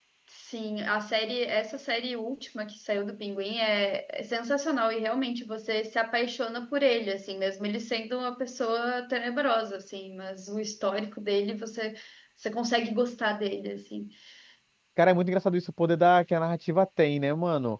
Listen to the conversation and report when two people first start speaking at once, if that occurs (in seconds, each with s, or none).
none